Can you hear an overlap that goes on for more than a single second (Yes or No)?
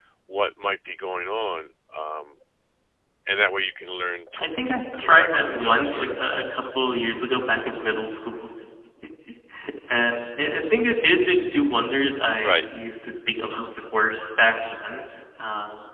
Yes